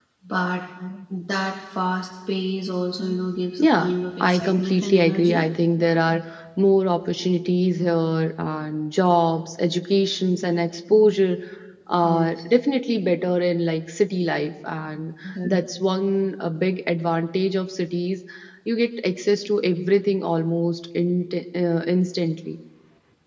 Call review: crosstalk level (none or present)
present